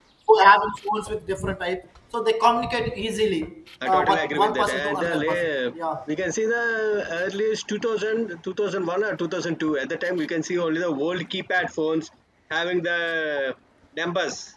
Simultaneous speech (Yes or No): Yes